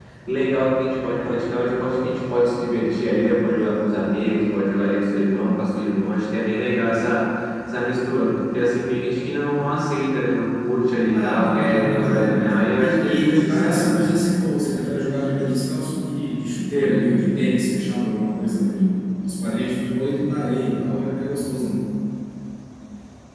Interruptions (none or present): present